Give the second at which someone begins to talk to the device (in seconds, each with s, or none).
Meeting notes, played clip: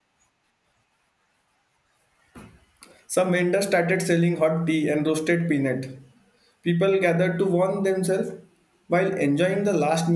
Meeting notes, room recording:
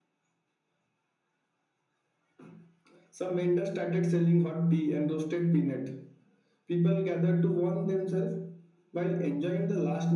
none